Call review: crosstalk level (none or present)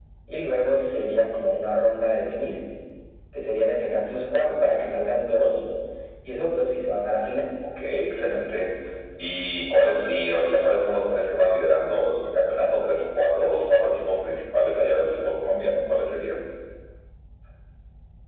none